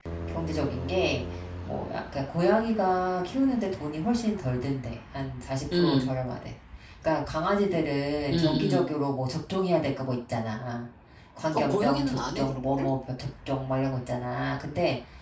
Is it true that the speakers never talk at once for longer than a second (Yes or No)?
No